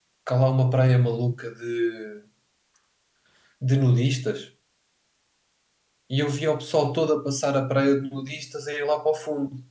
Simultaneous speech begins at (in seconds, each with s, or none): none